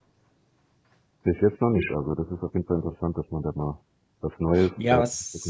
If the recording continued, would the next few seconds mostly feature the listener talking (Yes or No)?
Yes